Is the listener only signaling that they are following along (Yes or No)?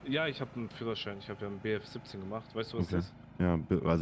No